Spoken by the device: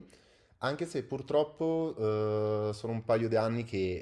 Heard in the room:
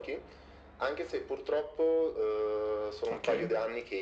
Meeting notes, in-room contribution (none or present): present